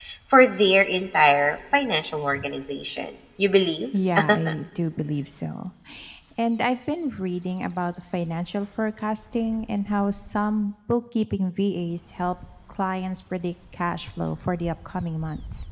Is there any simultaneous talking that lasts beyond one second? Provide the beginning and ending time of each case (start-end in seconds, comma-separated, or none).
none